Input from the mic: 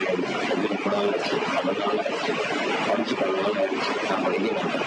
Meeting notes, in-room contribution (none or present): none